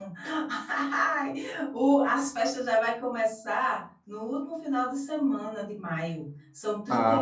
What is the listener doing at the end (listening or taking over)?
taking over